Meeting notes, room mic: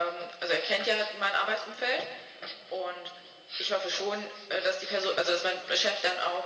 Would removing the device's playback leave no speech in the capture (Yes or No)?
Yes